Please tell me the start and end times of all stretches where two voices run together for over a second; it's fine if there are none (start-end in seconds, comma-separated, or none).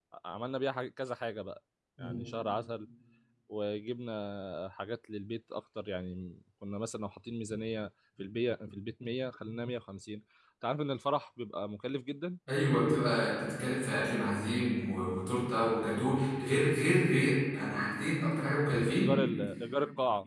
none